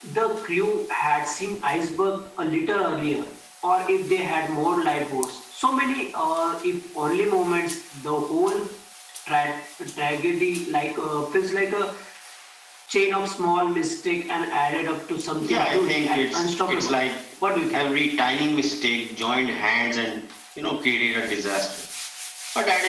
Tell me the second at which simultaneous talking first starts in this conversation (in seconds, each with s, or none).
15.4 s